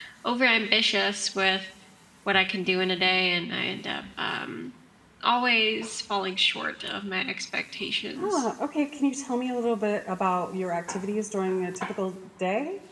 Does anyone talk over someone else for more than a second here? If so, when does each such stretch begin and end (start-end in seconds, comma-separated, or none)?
none